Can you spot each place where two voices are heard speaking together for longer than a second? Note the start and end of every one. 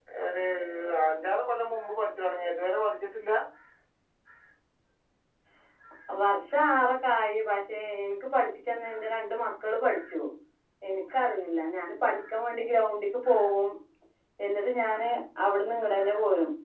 none

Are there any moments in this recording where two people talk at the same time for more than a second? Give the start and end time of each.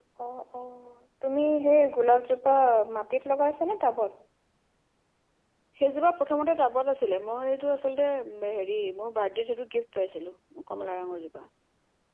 none

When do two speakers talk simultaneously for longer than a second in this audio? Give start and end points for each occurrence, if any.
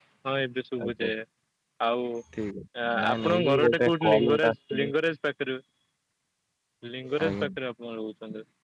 3.1-4.9

